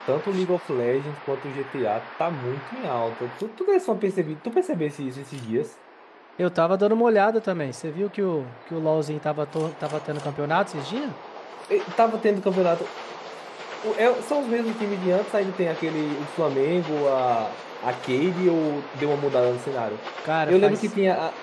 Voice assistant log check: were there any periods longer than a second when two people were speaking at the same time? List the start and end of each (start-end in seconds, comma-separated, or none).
none